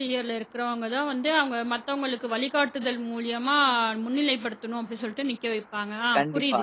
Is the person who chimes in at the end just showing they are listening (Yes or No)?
No